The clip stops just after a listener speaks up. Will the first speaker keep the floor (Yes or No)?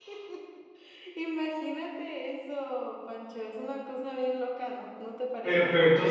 No